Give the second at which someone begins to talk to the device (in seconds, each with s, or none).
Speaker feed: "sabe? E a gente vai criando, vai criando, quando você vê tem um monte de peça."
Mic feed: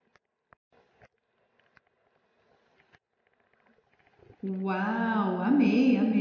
4.5 s